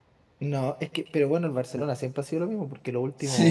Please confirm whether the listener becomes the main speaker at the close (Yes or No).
No